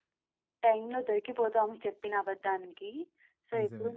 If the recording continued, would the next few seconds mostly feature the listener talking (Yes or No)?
No